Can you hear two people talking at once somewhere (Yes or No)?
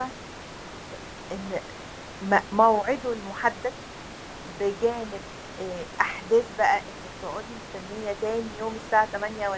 No